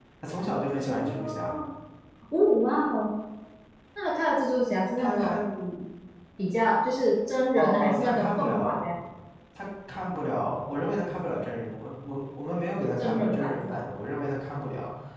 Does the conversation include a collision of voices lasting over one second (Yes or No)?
Yes